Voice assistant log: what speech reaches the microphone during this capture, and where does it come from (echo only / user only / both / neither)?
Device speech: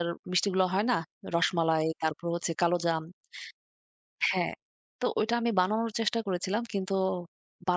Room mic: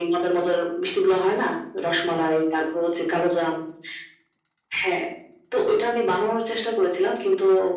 echo only